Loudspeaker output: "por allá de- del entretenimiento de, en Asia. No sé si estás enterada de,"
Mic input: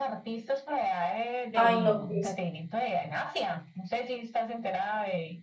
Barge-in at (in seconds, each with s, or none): 1.5 s